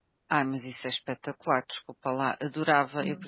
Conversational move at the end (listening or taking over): listening